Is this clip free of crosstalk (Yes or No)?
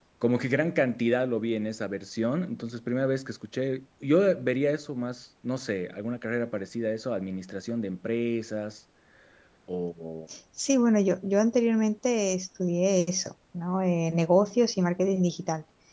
Yes